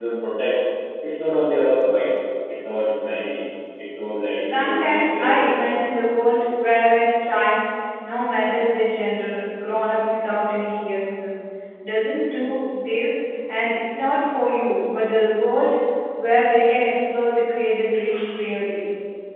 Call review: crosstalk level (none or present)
present